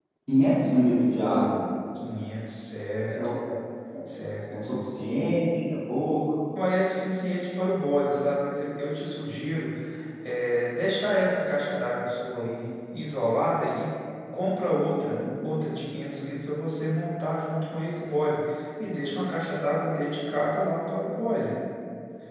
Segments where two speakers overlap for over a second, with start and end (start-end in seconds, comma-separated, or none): none